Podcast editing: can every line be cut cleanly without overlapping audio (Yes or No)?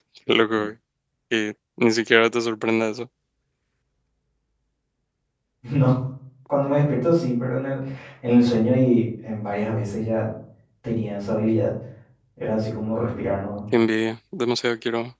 Yes